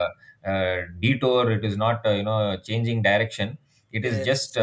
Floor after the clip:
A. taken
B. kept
B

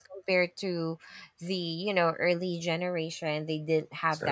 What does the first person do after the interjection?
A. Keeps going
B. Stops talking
A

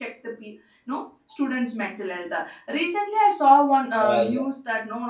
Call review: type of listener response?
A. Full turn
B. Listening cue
B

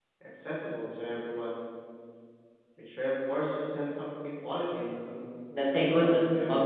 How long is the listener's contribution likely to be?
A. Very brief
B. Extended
B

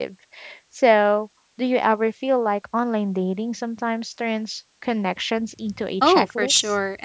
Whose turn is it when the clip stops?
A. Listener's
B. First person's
A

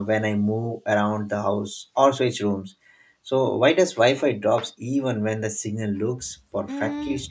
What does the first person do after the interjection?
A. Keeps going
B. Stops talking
B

